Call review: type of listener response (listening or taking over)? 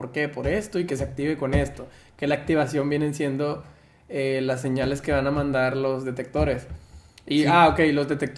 listening